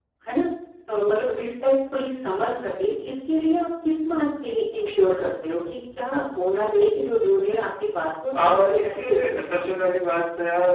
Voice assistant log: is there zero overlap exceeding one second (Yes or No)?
No